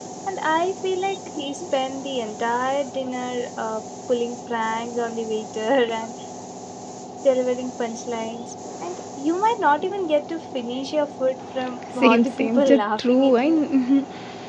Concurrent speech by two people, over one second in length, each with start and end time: 11.9-13.5

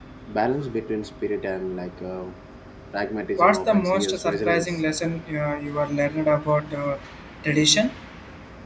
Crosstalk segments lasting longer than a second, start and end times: 3.4-4.8

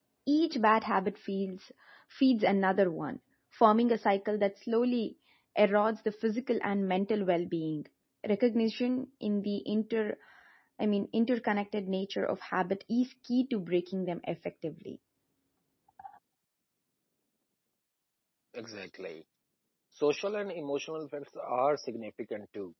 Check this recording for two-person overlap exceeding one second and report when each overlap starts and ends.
none

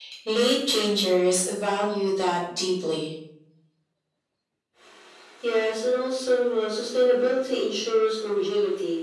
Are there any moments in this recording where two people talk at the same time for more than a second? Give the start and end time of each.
none

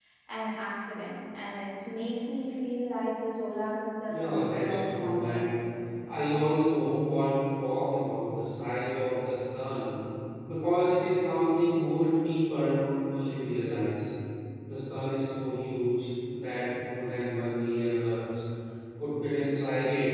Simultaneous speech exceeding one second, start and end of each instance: 4.1-5.4

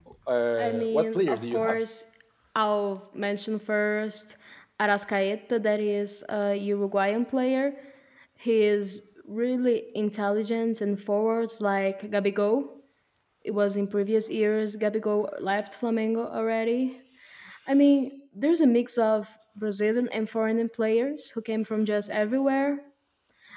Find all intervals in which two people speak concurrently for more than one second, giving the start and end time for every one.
0.6-1.8

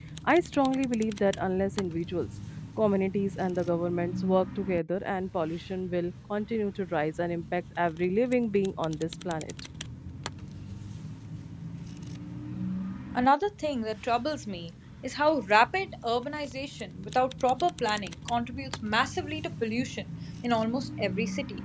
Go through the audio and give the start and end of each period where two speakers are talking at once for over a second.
none

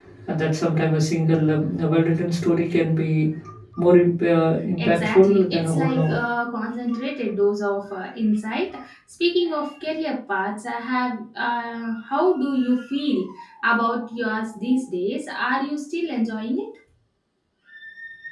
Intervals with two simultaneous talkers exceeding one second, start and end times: 4.8-6.2

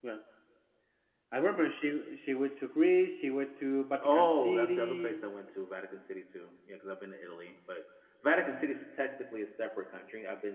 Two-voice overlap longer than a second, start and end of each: 4.0-5.2

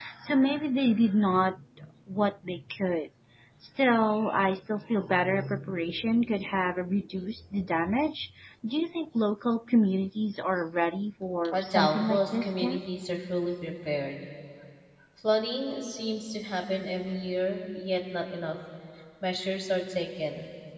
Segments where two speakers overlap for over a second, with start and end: 11.5-12.8

